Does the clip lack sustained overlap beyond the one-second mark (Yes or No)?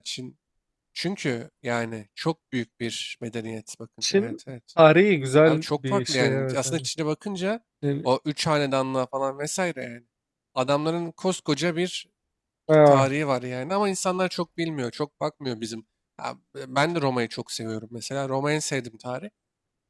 No